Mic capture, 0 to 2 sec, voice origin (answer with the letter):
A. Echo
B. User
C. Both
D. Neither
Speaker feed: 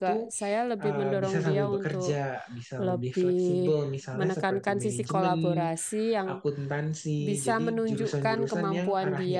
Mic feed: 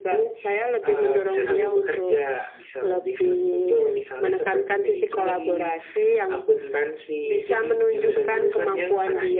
A